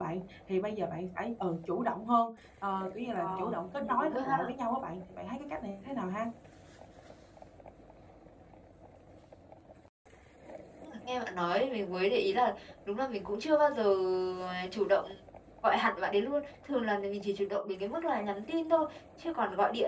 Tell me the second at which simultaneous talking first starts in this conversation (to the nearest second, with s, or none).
3 s